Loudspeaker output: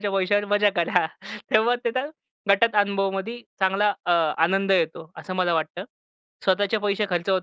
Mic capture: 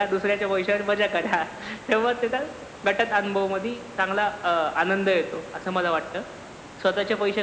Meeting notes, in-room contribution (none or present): none